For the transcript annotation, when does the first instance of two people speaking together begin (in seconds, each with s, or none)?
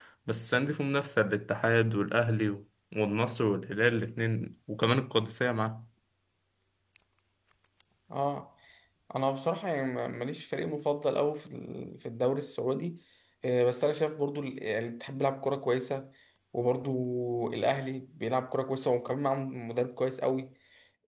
none